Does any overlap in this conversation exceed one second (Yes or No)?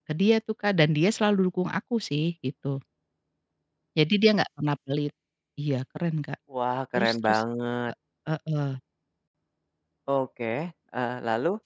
No